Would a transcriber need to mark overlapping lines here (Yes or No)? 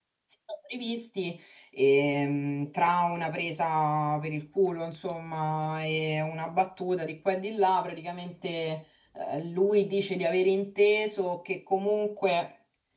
No